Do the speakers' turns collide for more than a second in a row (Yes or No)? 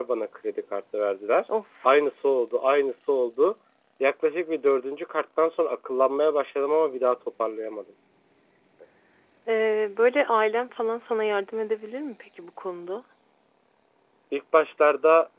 No